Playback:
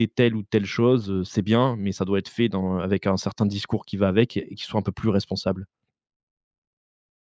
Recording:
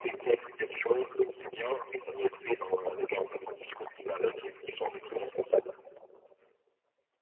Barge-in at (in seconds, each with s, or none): none